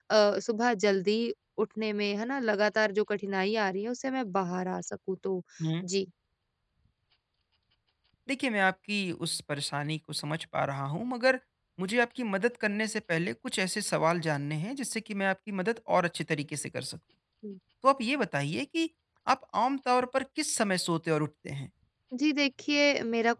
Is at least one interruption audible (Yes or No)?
No